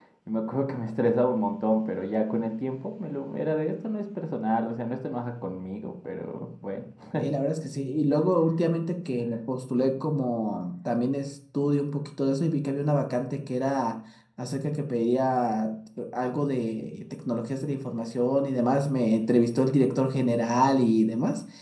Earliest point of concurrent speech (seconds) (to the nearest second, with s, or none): none